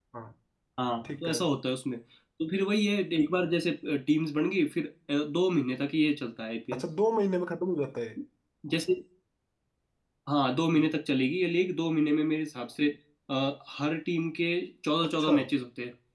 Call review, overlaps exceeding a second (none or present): none